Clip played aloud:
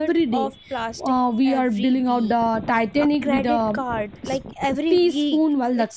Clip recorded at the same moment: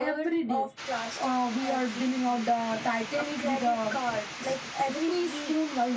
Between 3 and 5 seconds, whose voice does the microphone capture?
echo only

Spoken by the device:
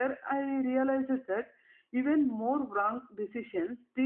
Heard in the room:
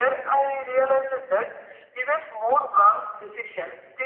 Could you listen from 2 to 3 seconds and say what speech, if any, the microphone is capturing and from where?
echo only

